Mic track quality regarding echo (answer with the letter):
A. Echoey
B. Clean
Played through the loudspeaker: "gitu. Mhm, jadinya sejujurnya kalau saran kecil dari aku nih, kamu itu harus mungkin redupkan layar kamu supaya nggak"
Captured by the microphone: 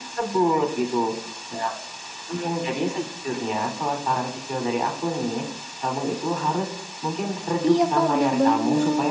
A